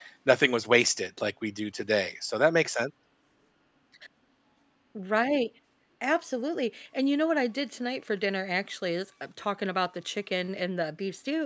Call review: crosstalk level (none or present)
none